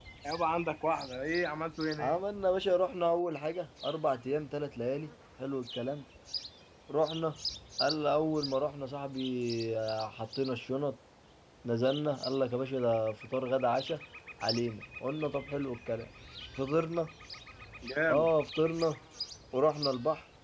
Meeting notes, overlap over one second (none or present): none